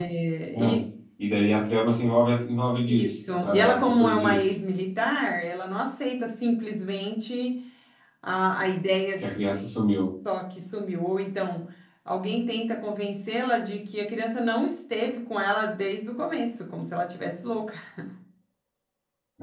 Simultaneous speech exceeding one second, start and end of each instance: 2.9-4.5

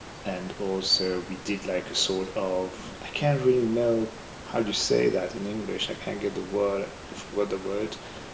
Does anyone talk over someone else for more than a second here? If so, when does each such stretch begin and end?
none

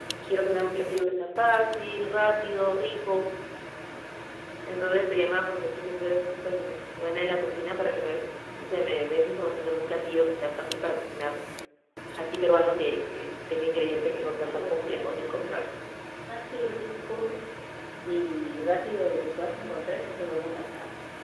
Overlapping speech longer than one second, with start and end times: 14.2-15.7

